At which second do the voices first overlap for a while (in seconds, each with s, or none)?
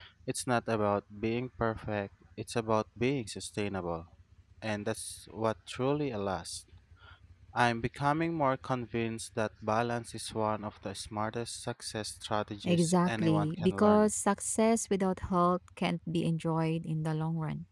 12.6 s